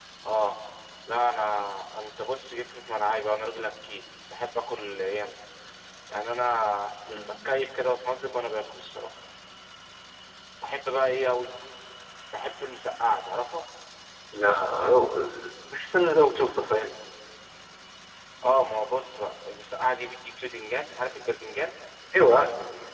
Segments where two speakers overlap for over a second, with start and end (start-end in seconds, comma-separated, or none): none